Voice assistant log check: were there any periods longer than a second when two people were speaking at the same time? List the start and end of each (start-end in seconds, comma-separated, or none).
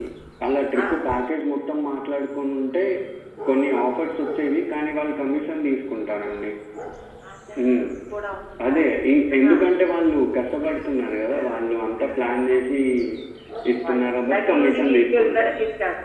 13.9-15.5